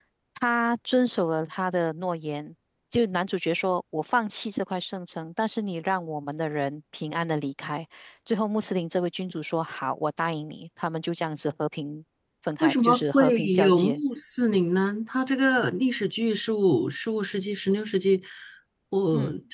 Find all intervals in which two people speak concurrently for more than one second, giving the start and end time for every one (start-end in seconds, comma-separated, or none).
12.6-14.0